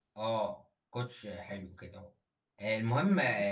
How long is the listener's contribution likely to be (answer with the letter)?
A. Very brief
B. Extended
A